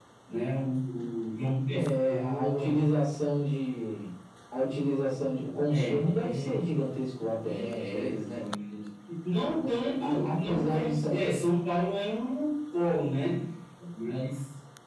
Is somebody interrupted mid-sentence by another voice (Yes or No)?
Yes